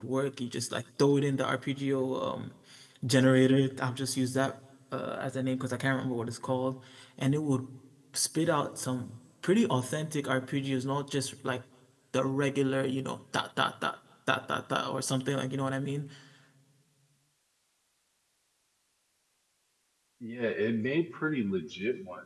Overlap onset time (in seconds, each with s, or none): none